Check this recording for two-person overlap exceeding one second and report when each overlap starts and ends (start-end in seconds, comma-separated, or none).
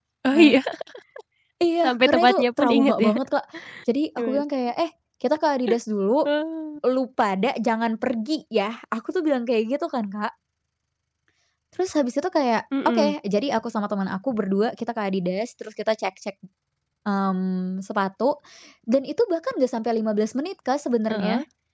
1.8-3.1